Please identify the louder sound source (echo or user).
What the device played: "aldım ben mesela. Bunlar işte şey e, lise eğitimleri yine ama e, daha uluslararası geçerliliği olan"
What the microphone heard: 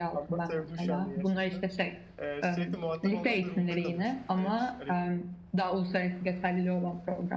echo